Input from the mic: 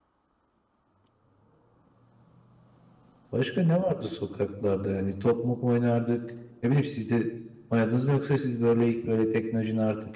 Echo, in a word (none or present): none